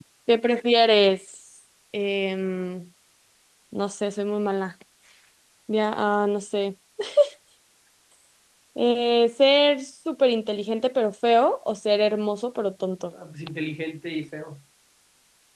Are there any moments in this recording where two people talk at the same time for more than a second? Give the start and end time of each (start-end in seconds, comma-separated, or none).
none